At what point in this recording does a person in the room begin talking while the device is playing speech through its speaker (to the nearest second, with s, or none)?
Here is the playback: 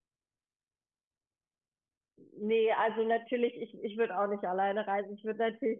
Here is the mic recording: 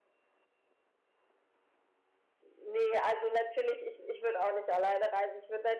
none